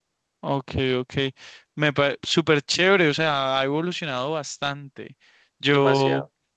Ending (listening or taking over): listening